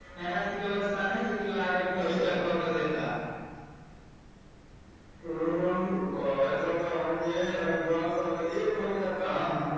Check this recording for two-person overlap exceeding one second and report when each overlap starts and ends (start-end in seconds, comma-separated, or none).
none